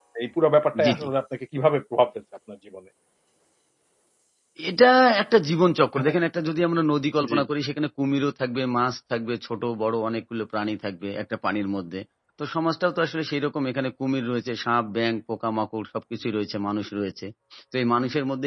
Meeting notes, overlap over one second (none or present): none